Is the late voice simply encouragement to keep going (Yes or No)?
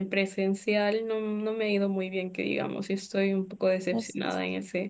Yes